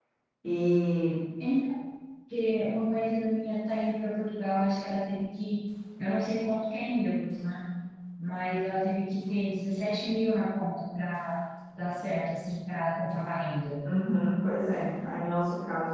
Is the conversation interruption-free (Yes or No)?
Yes